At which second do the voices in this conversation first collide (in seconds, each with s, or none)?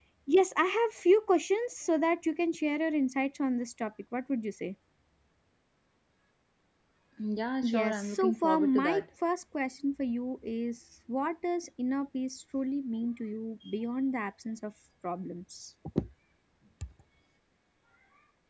7.6 s